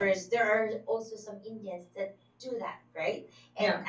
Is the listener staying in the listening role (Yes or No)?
Yes